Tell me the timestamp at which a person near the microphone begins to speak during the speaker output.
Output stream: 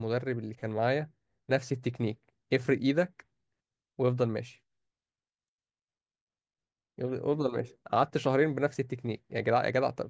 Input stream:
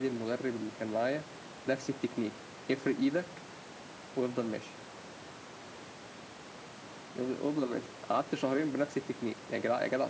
none

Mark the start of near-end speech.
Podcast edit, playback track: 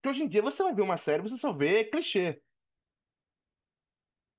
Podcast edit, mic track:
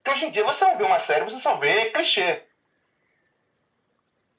none

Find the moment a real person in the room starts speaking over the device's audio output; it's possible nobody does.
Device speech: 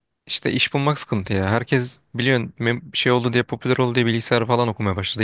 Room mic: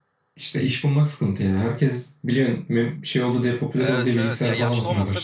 3.8 s

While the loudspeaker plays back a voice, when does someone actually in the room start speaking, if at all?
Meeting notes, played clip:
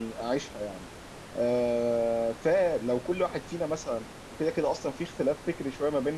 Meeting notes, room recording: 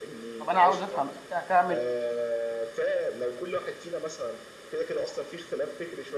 0.4 s

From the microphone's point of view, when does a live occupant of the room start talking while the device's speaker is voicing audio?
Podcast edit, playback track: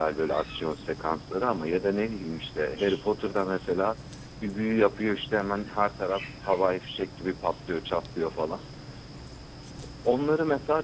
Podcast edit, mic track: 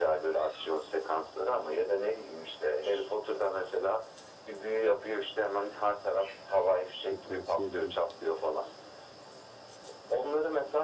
7.0 s

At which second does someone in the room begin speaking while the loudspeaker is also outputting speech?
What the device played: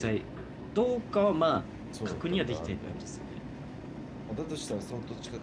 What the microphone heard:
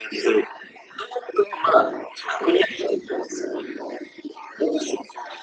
none

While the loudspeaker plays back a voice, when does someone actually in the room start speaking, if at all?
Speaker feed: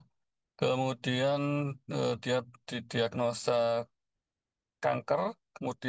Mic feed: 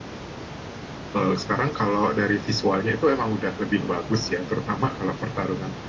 1.2 s

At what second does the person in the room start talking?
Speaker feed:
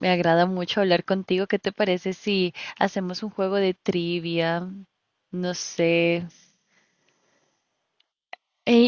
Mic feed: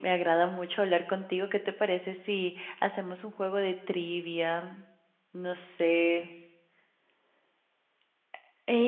none

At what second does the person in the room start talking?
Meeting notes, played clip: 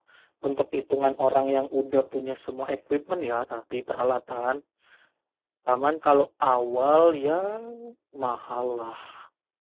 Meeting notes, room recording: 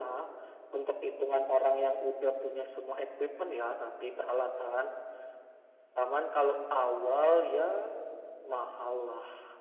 none

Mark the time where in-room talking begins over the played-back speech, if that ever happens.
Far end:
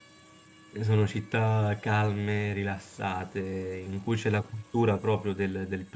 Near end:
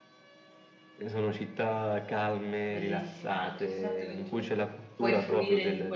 2.6 s

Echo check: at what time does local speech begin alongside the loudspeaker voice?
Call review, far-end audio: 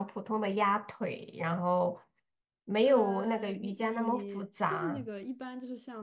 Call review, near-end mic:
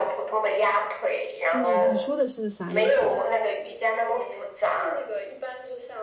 1.5 s

